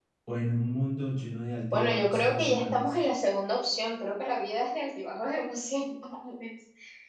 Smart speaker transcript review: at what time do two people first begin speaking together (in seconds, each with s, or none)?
1.7 s